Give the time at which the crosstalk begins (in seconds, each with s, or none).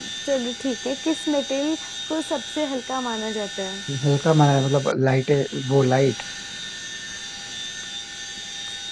none